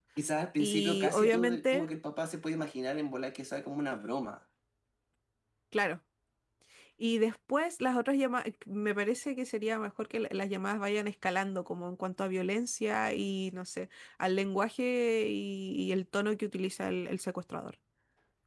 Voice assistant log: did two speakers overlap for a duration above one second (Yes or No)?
Yes